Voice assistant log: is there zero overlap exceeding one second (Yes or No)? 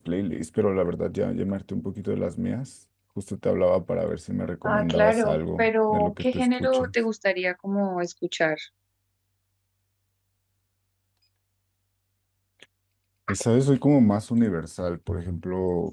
No